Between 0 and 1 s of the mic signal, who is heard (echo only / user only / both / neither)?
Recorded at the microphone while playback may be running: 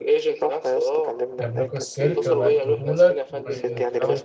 echo only